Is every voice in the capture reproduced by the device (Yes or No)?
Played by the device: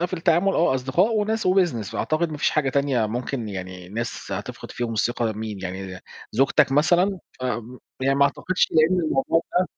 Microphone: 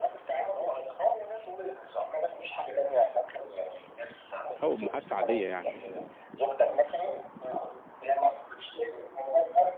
No